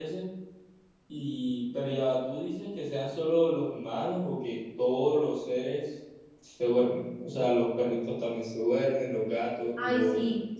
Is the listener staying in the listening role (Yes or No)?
No